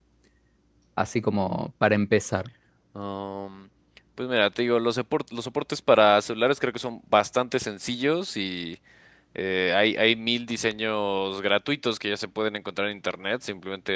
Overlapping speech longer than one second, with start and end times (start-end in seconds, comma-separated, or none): none